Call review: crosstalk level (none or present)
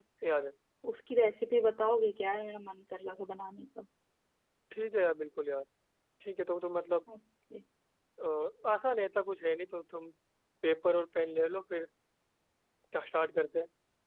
none